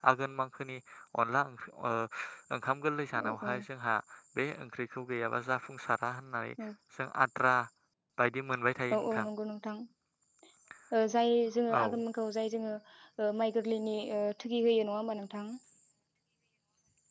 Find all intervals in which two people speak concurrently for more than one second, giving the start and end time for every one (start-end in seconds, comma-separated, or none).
none